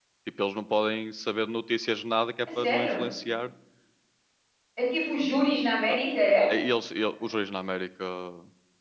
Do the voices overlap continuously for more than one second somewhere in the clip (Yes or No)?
No